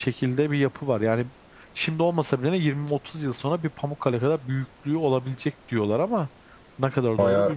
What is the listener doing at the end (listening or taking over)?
taking over